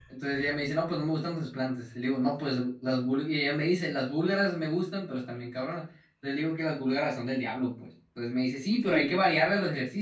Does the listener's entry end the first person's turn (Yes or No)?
No